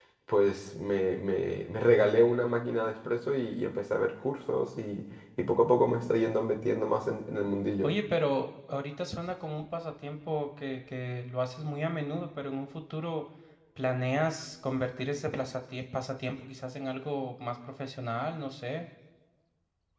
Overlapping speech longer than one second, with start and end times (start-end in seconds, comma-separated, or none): none